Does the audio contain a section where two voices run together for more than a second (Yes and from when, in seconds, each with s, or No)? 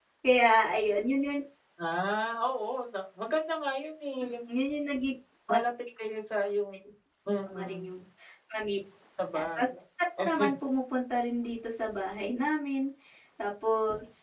No